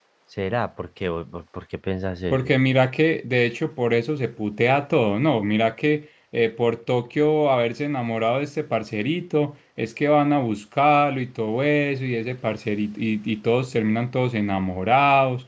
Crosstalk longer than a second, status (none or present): none